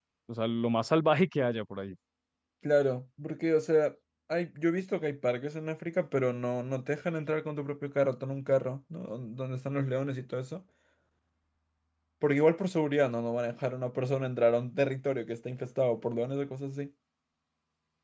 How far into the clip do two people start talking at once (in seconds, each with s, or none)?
none